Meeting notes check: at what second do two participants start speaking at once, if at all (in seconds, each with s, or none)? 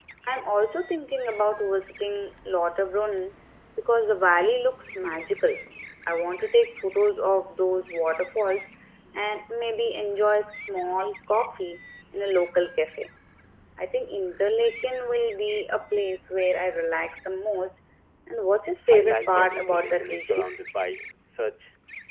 18.9 s